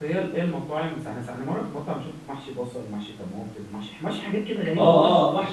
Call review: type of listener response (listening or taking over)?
taking over